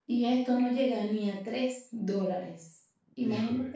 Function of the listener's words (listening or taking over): listening